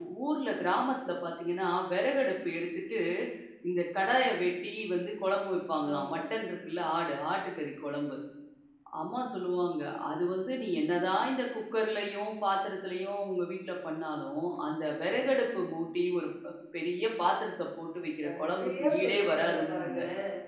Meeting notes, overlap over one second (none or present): present